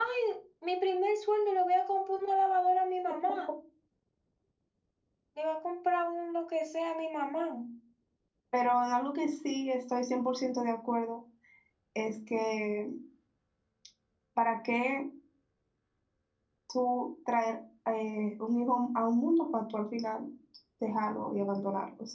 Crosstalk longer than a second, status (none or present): none